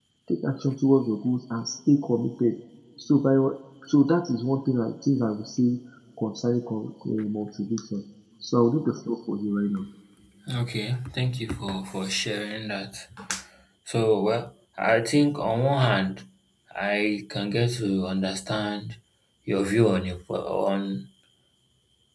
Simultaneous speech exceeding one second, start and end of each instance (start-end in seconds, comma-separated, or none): none